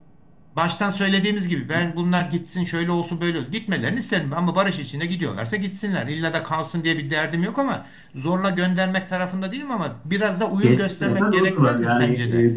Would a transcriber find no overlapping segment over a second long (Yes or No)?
No